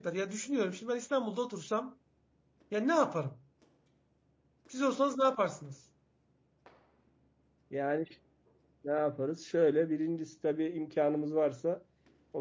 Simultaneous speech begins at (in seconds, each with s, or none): none